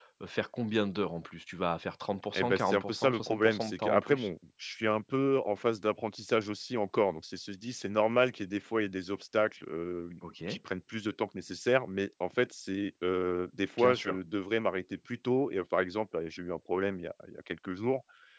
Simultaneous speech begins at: 2 s

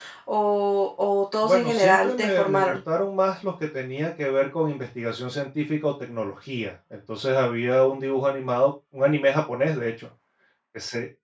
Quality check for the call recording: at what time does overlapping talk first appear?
1 s

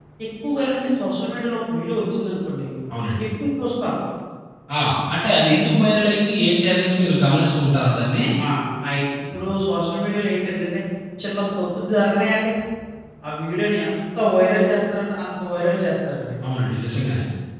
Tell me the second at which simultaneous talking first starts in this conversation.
none

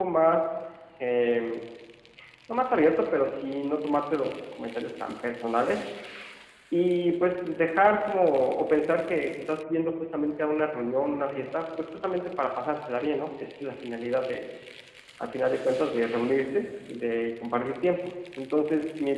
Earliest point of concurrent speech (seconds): none

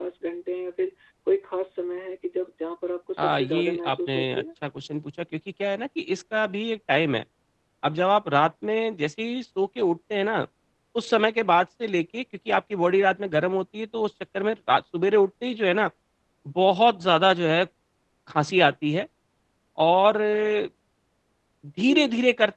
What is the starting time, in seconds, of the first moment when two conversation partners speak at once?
3 s

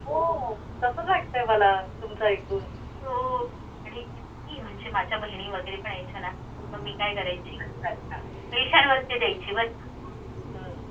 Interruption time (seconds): none

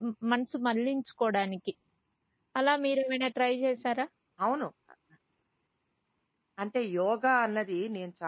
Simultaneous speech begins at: none

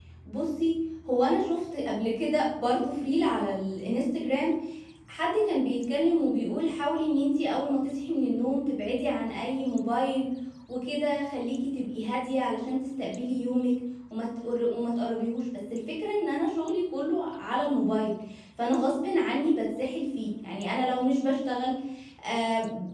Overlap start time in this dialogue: none

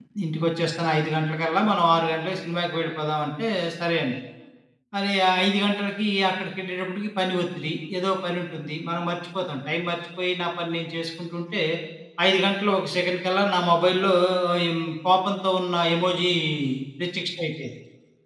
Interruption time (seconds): none

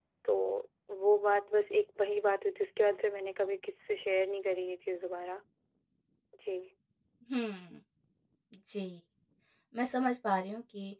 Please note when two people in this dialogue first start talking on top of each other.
none

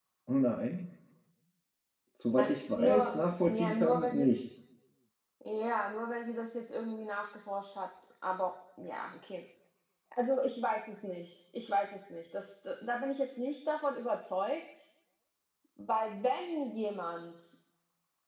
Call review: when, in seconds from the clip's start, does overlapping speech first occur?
2 s

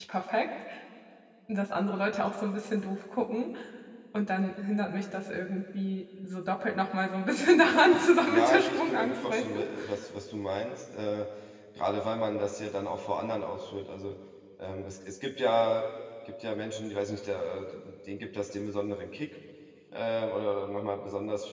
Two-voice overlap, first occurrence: 8 s

